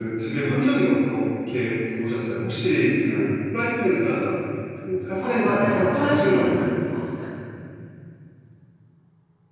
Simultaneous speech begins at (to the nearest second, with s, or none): 5 s